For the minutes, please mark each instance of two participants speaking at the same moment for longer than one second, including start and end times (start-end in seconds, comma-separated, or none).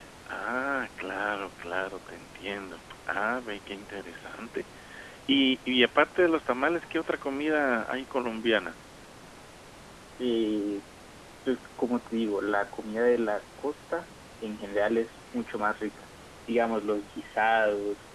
none